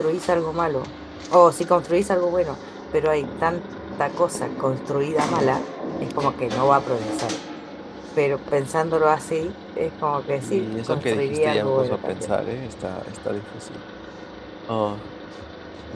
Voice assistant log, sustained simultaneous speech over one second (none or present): present